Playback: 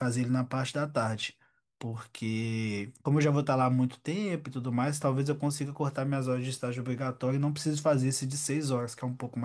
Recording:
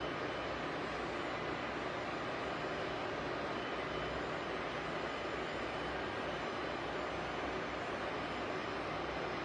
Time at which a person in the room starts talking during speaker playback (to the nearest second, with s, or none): none